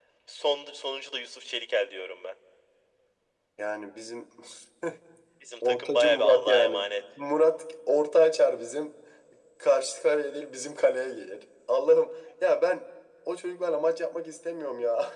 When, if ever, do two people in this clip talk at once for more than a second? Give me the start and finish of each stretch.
5.6-6.9

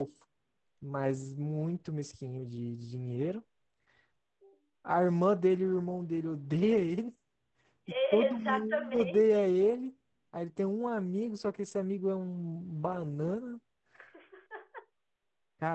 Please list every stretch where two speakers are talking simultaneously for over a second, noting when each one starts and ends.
8.1-9.4

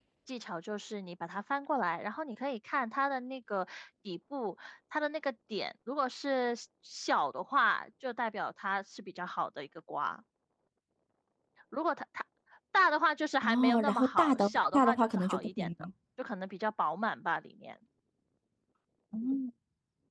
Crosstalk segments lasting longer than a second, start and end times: 13.4-15.7

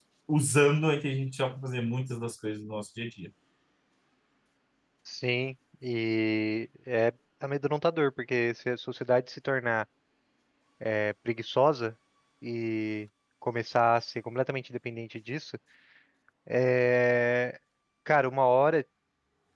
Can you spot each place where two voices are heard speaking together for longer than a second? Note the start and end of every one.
none

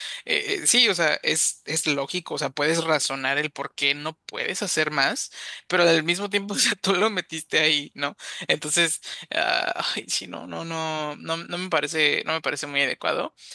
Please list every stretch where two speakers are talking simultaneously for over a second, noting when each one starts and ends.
none

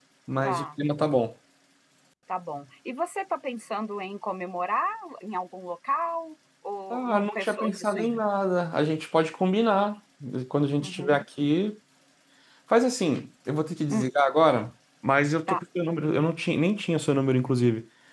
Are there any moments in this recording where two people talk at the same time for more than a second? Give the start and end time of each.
6.9-8.2

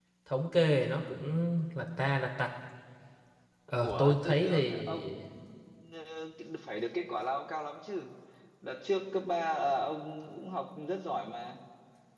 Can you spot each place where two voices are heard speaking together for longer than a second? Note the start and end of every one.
3.8-5.1

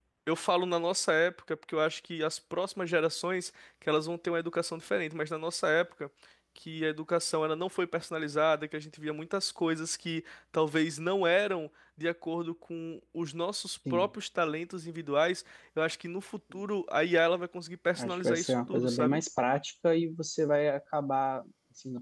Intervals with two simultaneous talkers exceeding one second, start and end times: 18.0-19.2

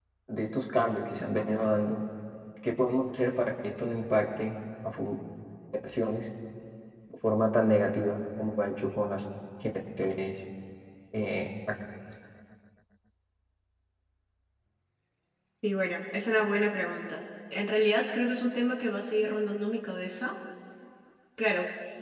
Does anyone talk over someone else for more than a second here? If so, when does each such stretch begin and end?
none

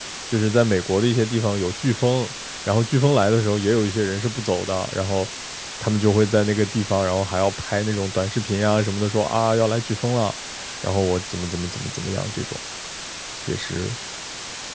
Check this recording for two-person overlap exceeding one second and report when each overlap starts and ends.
none

